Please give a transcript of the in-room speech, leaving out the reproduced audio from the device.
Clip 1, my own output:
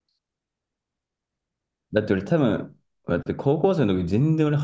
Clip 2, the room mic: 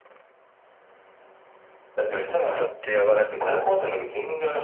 ちょっとやばかったな。

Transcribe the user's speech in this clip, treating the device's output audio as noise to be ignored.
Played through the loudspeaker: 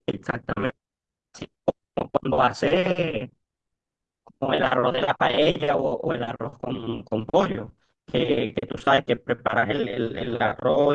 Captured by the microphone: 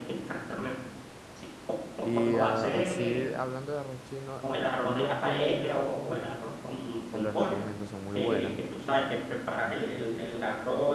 Y ah, así, hablando de arroz chino, lumpias he llegado a comer. Te los recomiendo, son muy buenas,

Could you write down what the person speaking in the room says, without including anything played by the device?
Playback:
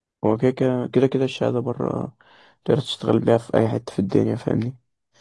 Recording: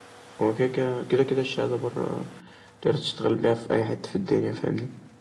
none

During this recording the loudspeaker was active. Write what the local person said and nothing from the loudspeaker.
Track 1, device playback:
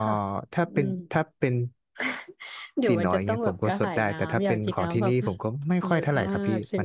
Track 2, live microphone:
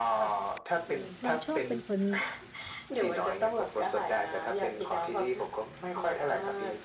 เราชอบเป็นคน

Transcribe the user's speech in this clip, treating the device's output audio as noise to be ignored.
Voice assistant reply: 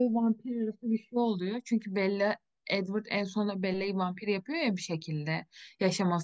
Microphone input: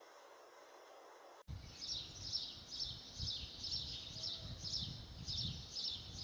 none

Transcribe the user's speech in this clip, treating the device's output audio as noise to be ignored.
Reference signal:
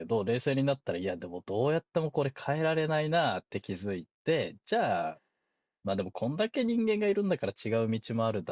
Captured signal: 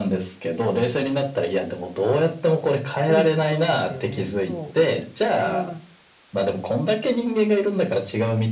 うん、そうですよね。そう。うん。

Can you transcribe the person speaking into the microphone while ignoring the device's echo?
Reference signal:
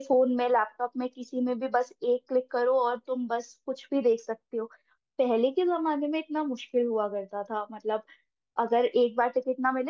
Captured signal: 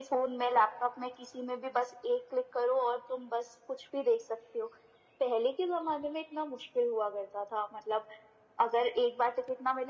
none

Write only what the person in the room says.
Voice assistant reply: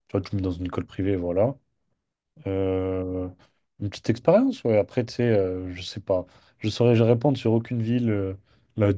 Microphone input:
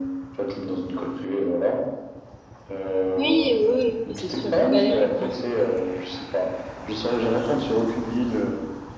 Oui, oui, oui, oui, c'est sûr, sans galérer quoi.

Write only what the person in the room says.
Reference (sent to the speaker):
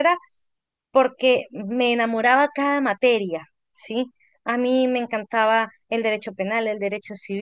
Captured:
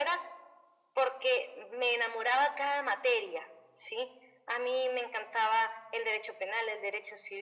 none

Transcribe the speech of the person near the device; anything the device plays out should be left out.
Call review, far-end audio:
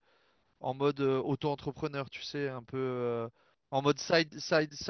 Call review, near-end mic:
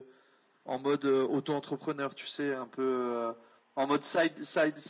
none

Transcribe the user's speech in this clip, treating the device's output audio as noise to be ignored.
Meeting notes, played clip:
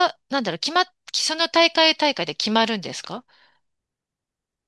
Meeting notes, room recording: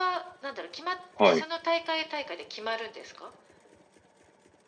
はい。

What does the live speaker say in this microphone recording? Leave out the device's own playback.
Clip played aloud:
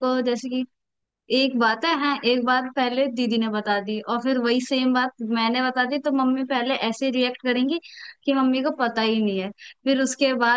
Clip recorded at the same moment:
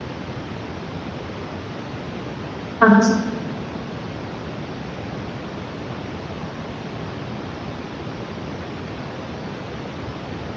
अच्छा

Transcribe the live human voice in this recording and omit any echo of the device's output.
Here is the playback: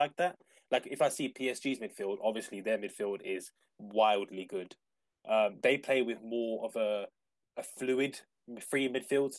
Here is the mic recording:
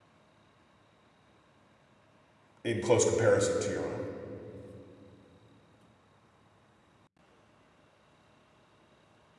in close comparison to your own?

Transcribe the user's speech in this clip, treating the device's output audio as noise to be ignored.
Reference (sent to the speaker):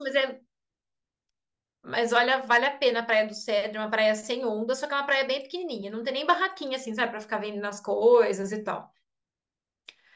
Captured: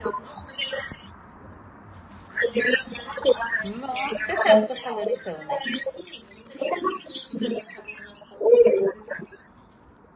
Nossa, você sabe o que eu tô falando então, né?

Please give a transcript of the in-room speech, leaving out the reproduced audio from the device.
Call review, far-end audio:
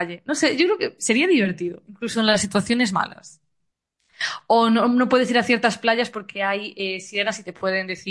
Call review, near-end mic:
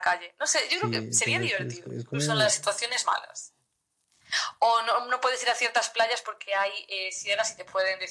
Sí, entonces pues, es, es como,

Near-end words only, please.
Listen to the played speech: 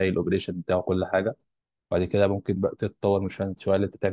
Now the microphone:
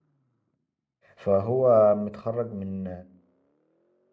فهو متخرج من

